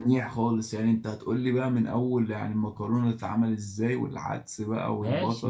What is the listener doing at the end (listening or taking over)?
taking over